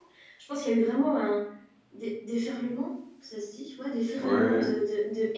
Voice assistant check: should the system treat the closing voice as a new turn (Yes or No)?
No